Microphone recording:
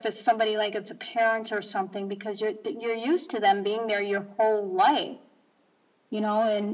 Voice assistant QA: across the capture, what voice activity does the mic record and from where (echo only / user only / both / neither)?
echo only